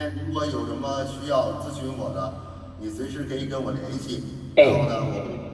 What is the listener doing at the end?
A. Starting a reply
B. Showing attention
B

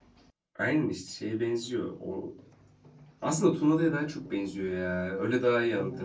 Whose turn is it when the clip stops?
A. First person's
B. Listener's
A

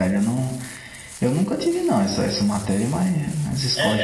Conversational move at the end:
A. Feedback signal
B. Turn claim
B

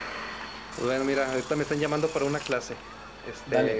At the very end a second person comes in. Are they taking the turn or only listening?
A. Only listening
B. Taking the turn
A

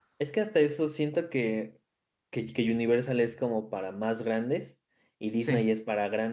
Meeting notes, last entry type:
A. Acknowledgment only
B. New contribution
A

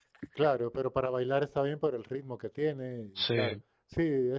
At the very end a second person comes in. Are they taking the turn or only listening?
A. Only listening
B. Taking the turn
A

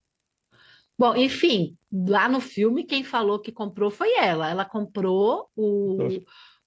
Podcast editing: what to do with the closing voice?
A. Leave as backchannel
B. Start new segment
A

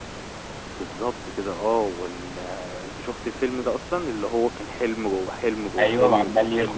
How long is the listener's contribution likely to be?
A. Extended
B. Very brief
A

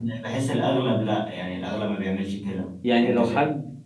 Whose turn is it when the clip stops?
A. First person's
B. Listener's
B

